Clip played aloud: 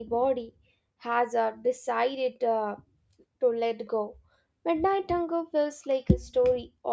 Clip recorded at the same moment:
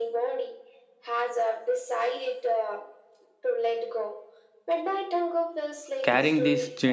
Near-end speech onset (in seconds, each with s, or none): 6.0 s